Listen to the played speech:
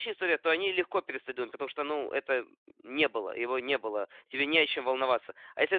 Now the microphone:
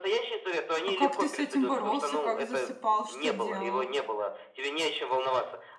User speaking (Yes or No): Yes